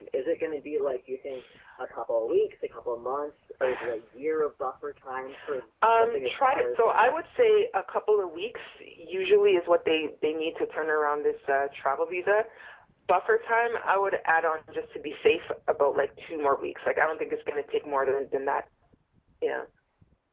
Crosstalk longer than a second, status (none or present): present